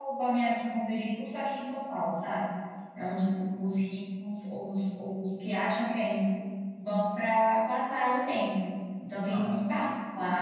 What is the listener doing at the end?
listening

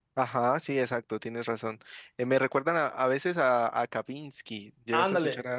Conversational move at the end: taking over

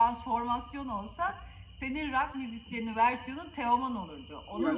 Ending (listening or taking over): taking over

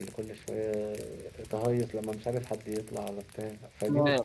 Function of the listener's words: taking over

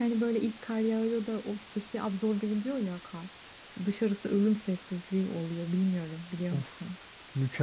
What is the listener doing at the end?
taking over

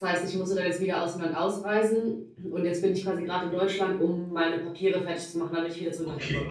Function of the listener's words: taking over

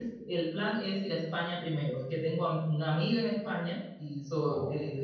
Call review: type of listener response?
listening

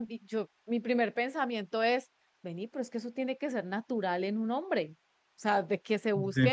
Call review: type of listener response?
listening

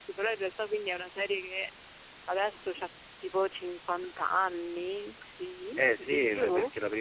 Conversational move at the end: taking over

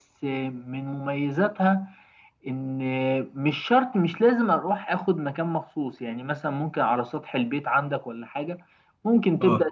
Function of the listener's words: listening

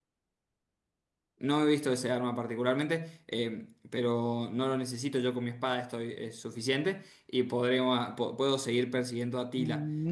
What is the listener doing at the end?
taking over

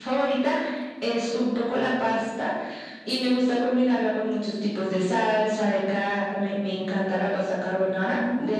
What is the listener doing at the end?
listening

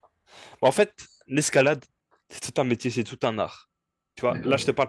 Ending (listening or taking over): listening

